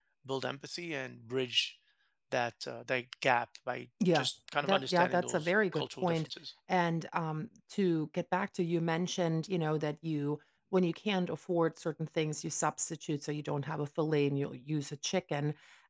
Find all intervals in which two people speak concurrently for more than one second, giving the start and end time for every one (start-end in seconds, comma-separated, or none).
4.6-6.3